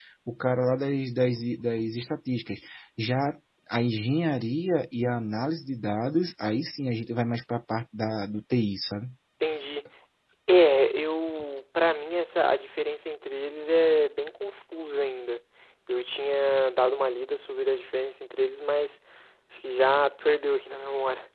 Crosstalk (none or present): none